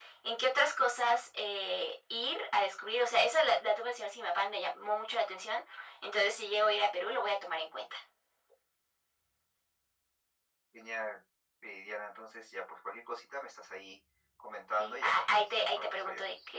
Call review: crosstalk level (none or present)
present